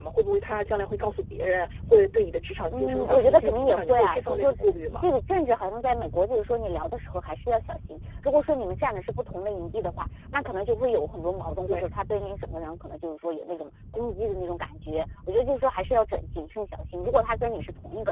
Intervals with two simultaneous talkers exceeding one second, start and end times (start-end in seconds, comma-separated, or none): 2.7-5.0